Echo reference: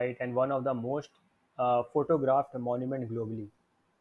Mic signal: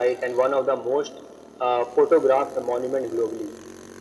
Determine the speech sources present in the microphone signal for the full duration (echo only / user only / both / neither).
echo only